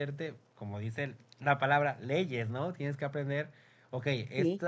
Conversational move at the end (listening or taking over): listening